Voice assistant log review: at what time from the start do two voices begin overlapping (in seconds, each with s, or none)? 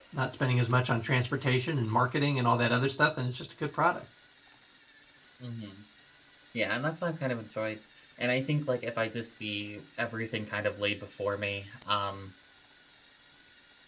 none